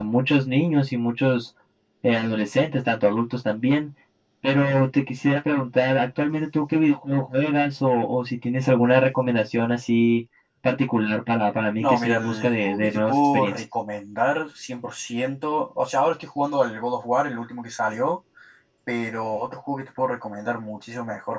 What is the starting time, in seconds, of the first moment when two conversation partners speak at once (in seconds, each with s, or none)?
11.8 s